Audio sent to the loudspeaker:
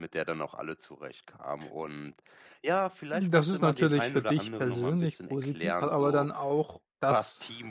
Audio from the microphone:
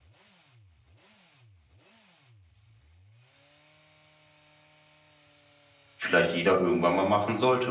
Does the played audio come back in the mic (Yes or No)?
No